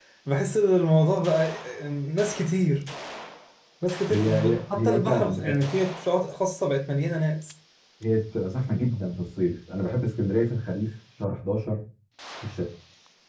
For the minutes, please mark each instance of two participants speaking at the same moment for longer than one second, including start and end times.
4.1-5.4

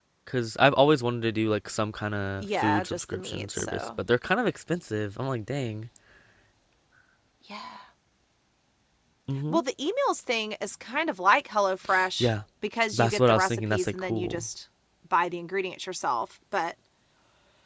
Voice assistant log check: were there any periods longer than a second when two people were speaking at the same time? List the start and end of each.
2.4-4.0, 12.9-14.5

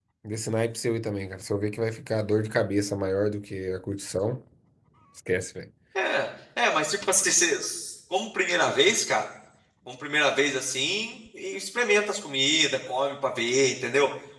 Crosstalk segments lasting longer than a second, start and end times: none

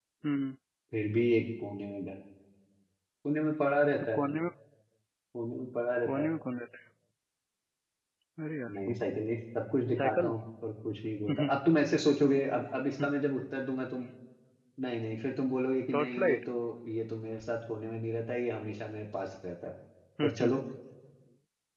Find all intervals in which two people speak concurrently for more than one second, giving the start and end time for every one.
none

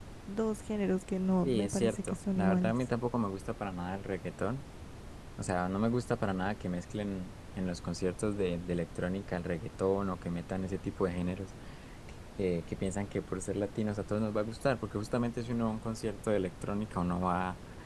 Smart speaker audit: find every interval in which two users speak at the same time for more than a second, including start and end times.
1.4-2.7

